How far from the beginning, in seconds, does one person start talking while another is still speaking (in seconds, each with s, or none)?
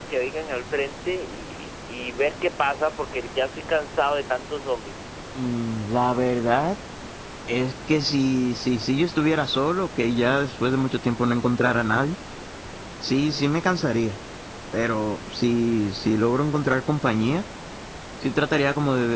none